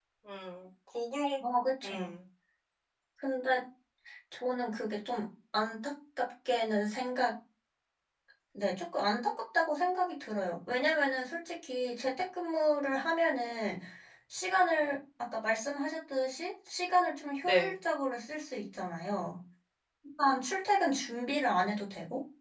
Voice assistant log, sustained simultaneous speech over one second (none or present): none